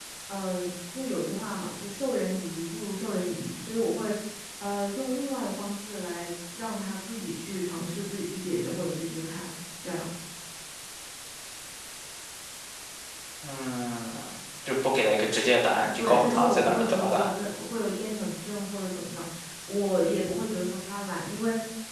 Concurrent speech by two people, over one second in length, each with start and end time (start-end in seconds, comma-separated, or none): 16.0-17.3